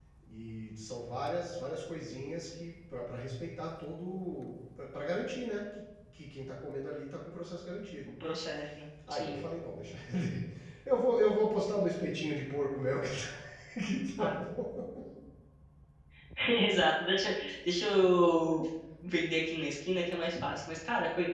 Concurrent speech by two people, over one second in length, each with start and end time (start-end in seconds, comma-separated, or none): none